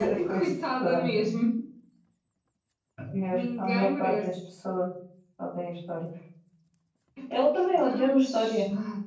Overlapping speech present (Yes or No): Yes